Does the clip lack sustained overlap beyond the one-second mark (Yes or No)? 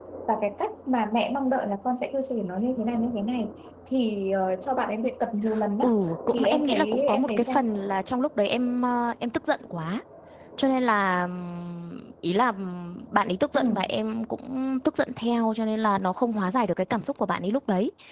No